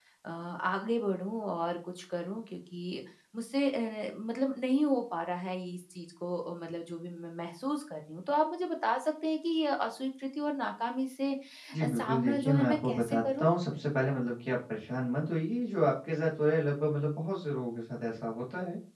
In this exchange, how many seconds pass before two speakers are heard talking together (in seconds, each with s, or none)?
11.8 s